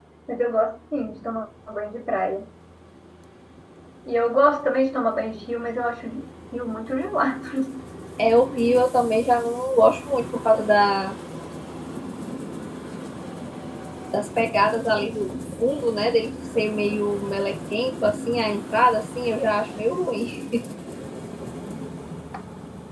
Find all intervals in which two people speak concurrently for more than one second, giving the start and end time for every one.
none

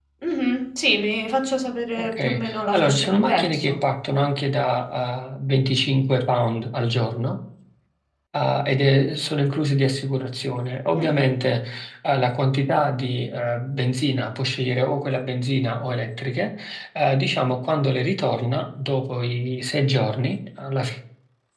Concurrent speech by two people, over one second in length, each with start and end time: 2.0-3.7

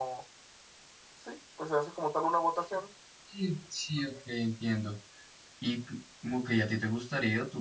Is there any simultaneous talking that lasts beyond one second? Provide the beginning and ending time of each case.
none

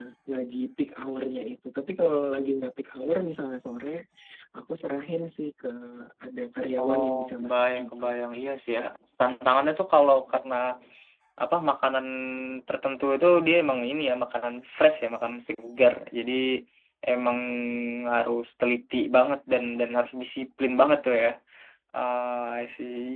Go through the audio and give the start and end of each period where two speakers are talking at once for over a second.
6.8-8.2

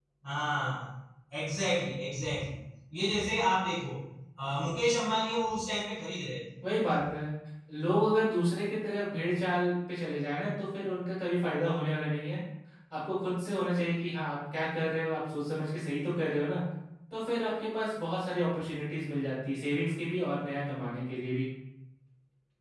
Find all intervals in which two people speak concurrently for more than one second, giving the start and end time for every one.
none

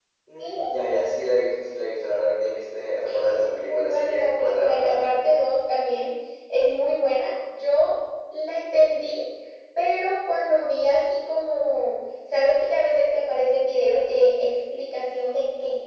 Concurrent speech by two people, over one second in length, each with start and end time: 3.3-5.0

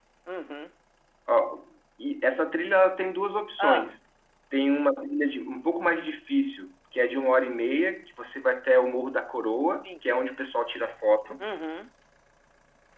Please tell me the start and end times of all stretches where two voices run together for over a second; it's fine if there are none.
none

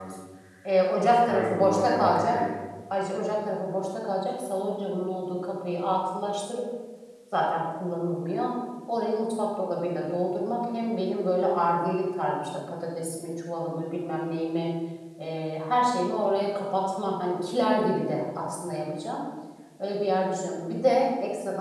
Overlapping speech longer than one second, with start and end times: 1.1-2.4

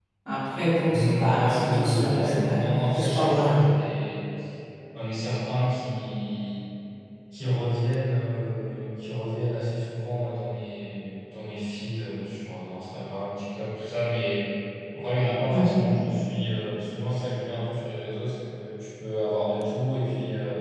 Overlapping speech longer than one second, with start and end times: 0.8-3.6

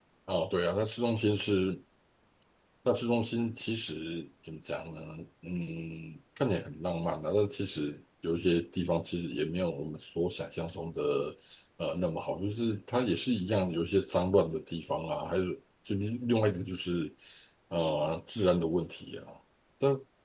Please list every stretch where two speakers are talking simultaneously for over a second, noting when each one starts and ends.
none

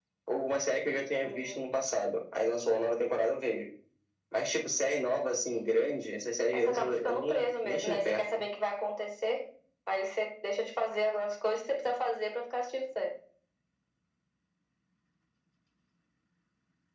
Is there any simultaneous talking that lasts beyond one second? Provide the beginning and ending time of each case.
6.5-8.4

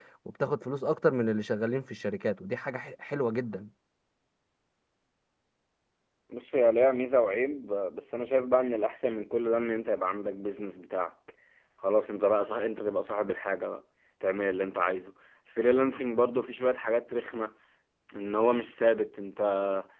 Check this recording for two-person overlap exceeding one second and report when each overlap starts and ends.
none

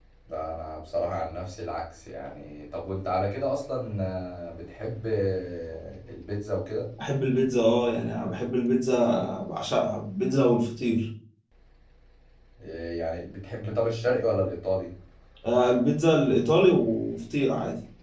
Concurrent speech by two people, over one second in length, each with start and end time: none

